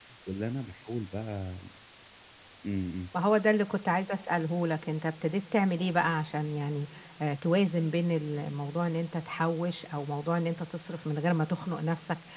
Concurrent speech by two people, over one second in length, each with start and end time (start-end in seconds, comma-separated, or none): none